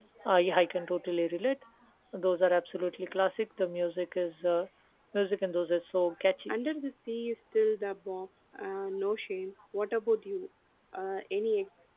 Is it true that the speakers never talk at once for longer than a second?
Yes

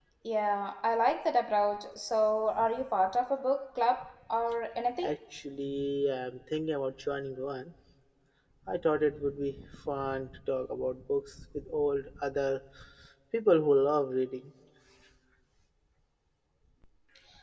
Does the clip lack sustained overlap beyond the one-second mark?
Yes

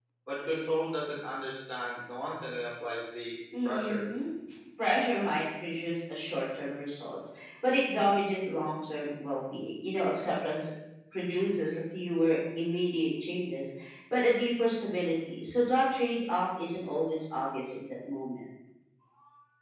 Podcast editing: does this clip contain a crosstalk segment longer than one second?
No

